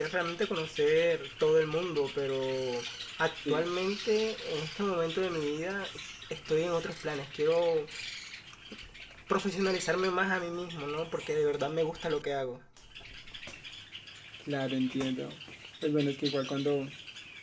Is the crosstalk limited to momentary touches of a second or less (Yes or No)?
Yes